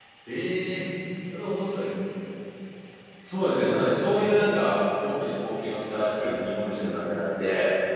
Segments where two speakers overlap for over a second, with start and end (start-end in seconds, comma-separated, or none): none